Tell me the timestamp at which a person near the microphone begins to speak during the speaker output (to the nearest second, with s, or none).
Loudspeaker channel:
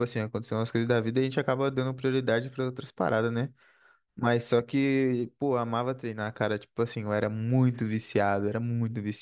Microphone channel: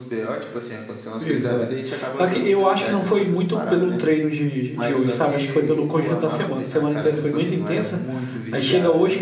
1 s